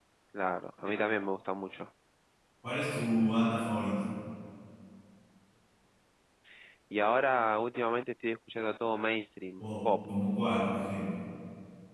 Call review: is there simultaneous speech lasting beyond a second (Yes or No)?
No